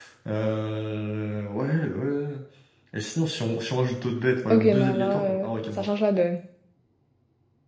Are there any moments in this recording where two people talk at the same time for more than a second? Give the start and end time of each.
4.5-5.9

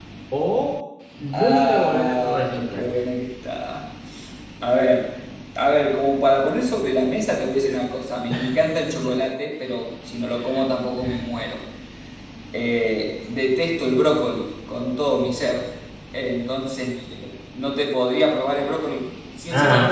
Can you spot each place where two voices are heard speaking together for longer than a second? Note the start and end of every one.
1.3-2.8

